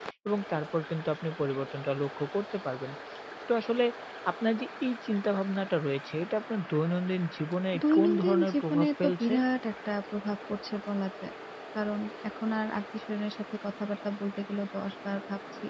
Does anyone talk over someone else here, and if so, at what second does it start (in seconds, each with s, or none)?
7.7 s